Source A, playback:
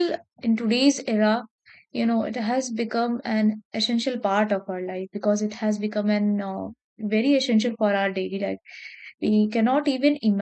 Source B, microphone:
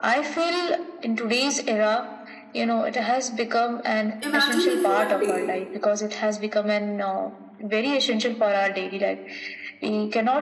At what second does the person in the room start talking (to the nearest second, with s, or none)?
4 s